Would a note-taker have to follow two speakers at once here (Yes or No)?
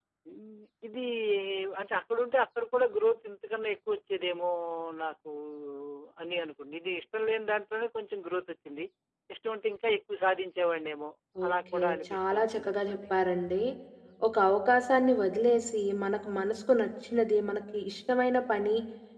Yes